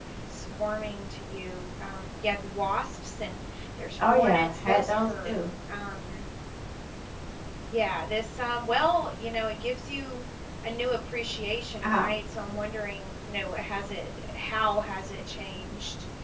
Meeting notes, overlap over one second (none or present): present